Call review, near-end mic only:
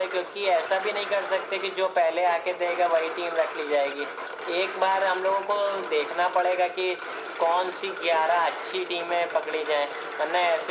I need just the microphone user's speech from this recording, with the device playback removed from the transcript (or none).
none